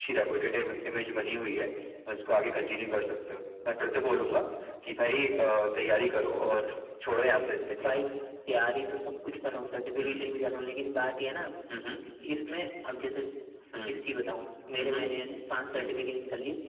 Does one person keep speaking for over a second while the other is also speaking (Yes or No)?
No